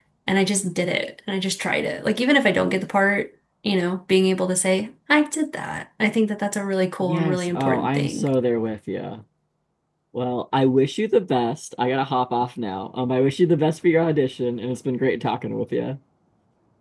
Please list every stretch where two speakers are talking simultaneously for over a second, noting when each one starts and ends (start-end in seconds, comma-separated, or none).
7.0-8.3